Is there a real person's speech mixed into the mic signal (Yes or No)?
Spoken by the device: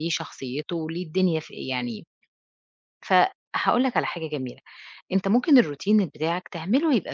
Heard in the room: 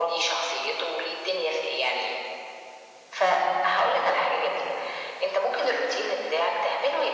No